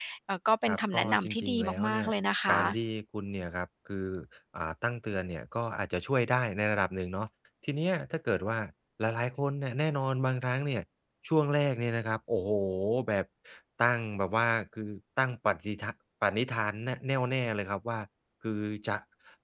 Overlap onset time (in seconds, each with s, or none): 0.7 s